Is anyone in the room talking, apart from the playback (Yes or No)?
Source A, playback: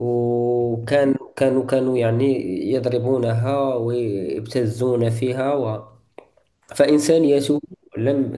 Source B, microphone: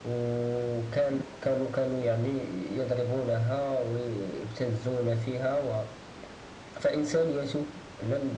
No